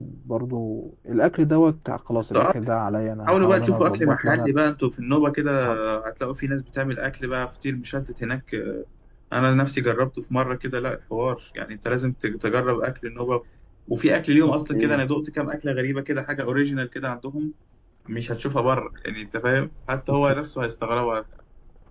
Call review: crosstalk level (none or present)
present